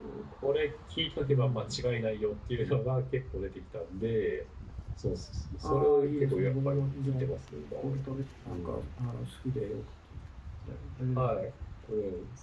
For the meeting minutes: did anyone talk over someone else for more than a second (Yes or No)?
Yes